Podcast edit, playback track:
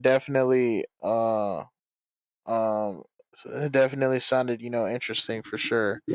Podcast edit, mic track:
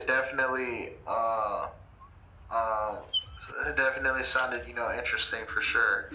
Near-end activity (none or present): none